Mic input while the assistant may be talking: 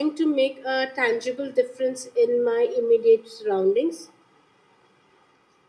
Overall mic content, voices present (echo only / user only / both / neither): user only